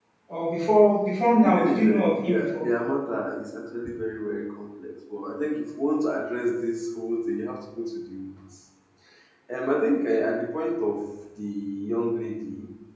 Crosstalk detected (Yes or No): Yes